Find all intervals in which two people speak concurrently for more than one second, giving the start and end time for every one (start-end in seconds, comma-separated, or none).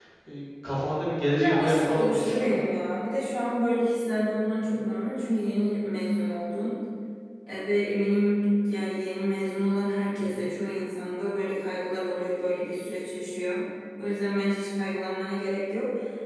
1.4-2.6